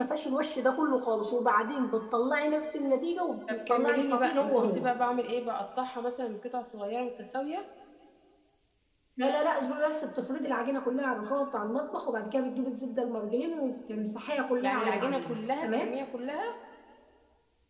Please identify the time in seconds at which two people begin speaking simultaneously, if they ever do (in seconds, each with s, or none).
3.5 s